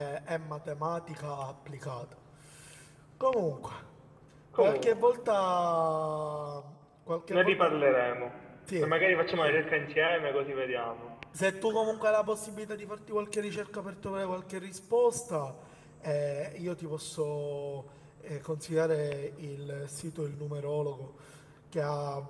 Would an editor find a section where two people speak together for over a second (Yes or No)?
No